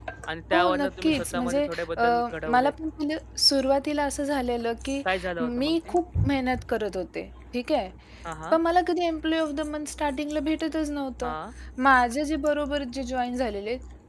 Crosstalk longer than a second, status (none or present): present